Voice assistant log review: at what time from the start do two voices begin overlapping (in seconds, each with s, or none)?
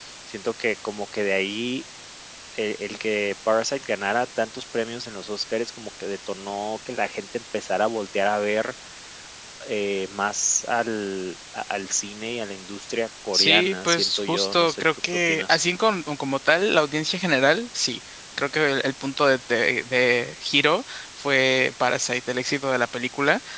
13.3 s